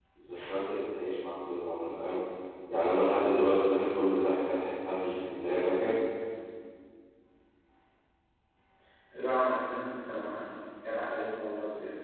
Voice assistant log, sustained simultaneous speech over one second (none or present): none